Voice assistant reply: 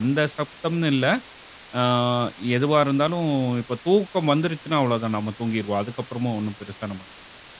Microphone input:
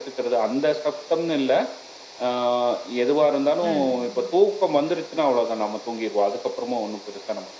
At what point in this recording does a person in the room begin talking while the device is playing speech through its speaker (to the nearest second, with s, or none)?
4 s